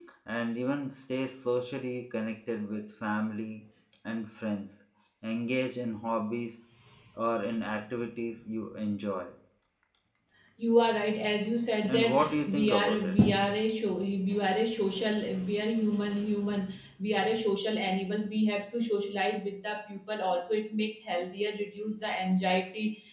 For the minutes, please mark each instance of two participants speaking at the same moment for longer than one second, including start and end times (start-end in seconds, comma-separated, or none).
11.9-13.2